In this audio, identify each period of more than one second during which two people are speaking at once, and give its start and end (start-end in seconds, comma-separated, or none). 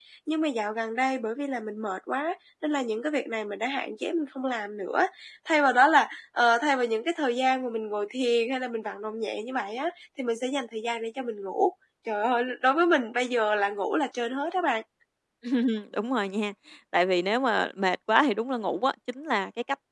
none